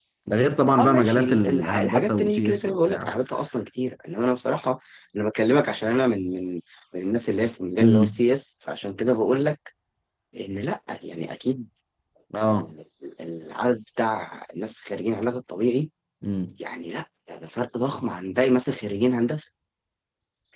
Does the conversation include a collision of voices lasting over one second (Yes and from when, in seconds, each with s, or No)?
Yes, from 0.8 s